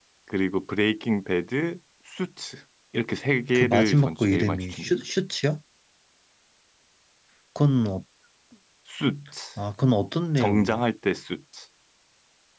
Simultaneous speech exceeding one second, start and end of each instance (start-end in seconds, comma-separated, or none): 3.5-4.9